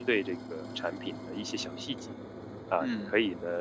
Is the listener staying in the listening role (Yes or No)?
Yes